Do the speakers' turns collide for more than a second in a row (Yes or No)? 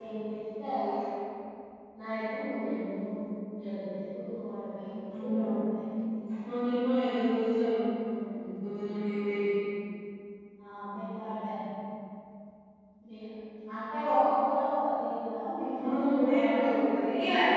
Yes